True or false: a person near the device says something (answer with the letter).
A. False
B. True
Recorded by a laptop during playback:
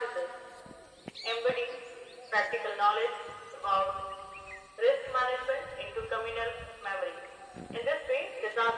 A